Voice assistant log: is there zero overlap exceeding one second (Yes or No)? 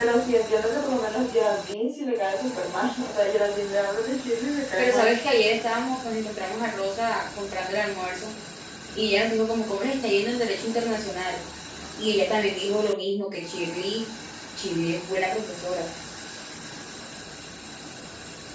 Yes